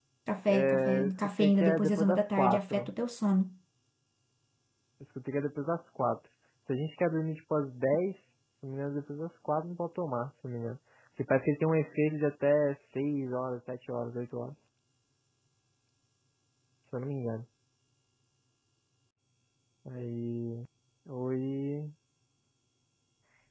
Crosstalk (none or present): present